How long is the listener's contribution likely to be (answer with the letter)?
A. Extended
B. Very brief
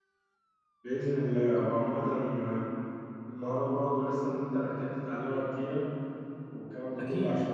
B